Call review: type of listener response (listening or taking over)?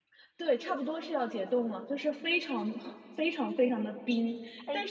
listening